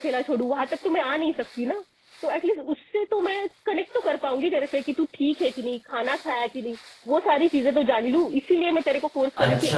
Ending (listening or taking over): taking over